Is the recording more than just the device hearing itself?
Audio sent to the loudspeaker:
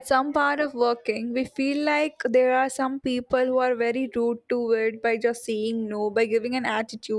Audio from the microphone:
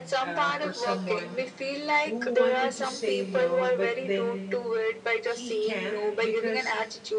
Yes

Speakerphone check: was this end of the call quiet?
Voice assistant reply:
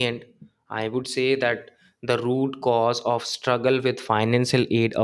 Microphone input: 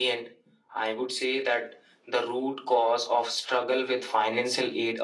Yes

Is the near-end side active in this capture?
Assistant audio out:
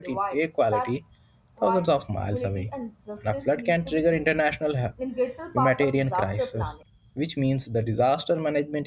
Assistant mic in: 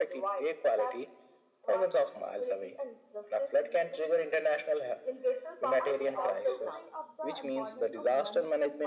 Yes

